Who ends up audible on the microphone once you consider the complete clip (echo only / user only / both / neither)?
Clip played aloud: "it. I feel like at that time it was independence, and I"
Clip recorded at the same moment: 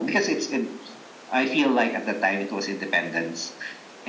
echo only